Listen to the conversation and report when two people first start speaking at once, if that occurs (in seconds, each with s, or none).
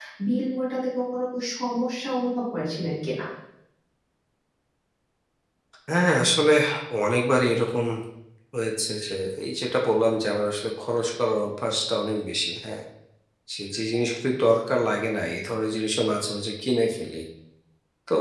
none